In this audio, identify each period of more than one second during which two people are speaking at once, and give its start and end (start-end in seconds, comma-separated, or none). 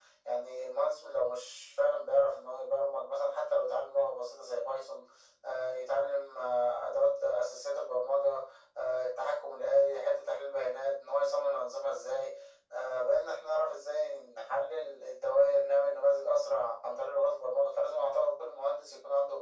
none